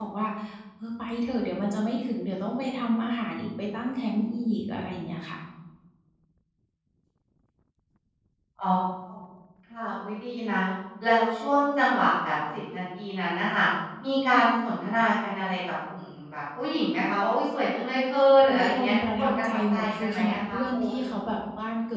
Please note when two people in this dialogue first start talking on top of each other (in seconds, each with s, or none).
18.4 s